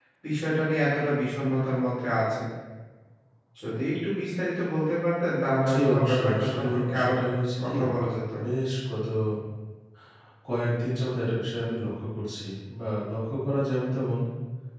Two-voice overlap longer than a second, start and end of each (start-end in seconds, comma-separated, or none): 5.7-7.2